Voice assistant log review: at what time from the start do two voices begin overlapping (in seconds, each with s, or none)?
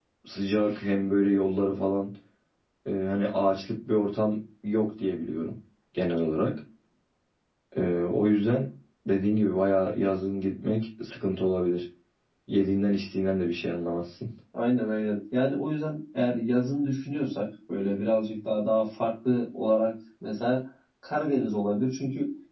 none